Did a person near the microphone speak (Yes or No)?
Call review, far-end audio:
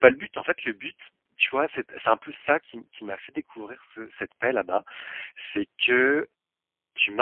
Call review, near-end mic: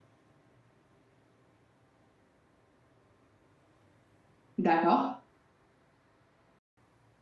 Yes